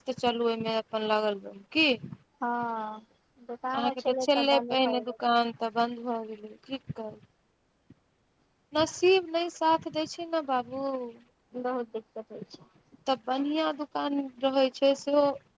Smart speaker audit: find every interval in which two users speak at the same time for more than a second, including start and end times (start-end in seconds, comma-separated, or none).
3.8-5.1